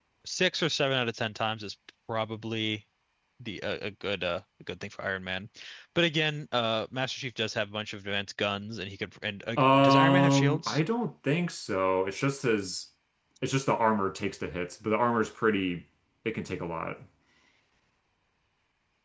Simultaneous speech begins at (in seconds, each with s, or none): 9.6 s